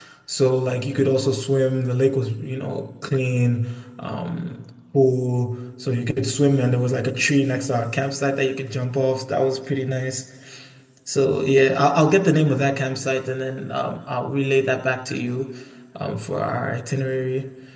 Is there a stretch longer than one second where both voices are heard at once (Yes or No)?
No